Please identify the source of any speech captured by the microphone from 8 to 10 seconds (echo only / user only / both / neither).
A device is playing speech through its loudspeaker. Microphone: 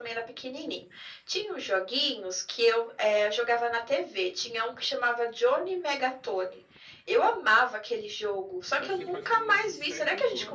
both